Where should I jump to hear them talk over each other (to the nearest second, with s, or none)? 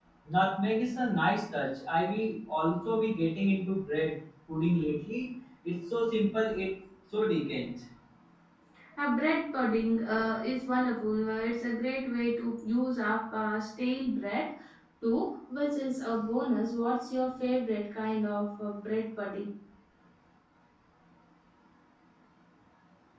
none